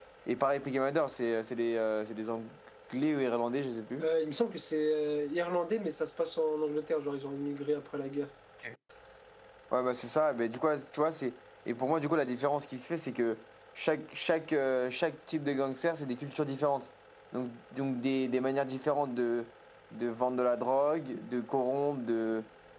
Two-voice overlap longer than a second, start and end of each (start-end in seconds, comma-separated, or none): none